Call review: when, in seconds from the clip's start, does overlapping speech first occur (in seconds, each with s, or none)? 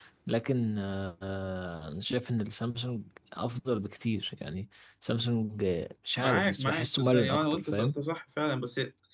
6.2 s